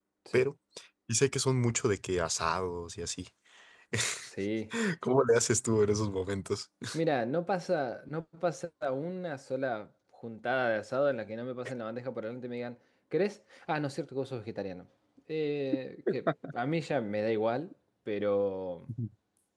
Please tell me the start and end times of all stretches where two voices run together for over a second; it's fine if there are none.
none

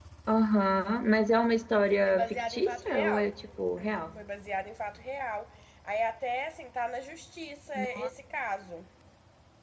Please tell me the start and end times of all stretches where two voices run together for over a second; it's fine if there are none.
2.0-3.3

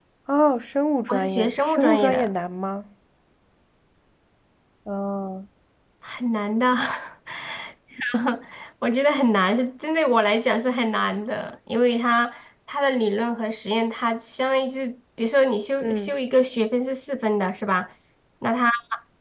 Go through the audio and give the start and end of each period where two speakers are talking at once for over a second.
1.1-2.3

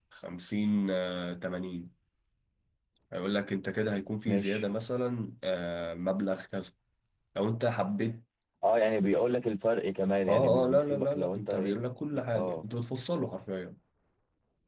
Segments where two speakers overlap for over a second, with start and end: 10.3-11.8

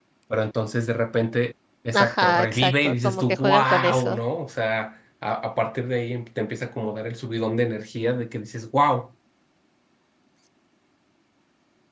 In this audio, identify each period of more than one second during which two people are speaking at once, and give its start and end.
1.9-4.2

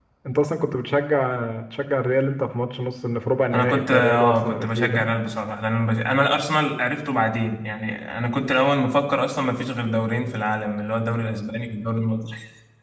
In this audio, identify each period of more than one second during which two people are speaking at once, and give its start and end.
3.5-5.0

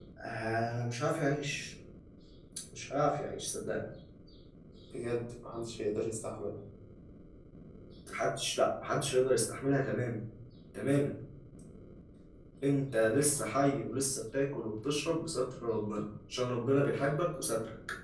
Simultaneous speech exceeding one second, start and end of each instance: none

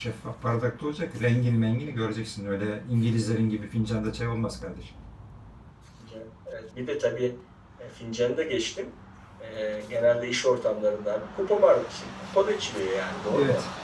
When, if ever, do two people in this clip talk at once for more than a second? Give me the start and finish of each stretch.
none

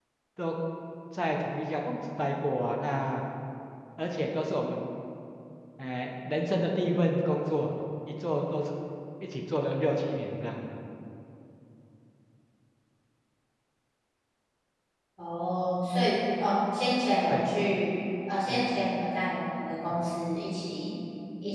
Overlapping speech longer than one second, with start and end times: none

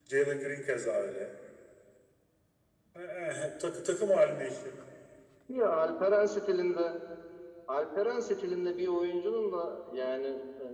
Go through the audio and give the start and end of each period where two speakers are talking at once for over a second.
none

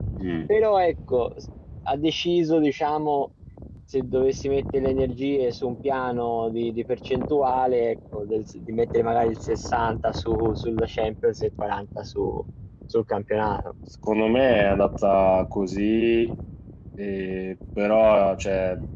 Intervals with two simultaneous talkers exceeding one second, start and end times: none

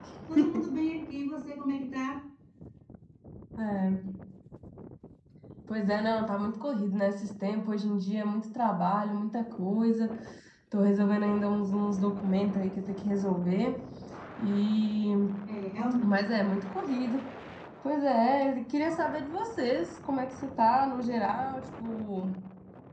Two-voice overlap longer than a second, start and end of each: none

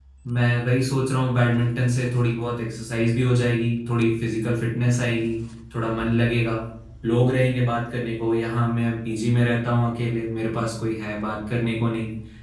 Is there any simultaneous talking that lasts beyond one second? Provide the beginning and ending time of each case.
none

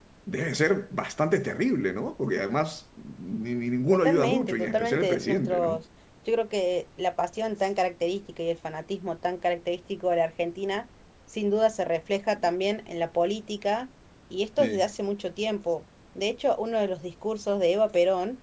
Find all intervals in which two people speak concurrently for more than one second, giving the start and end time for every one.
3.9-5.8

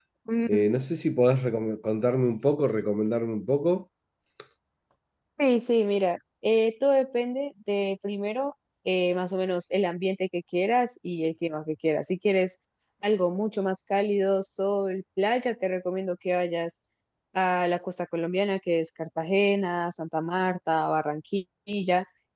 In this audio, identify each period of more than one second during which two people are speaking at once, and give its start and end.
none

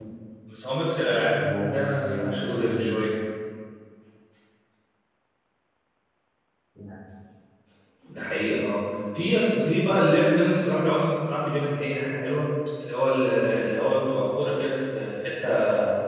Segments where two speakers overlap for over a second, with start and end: 1.4-3.0

